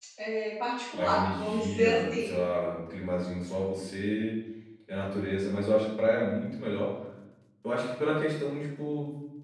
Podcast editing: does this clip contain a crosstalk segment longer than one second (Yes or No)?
Yes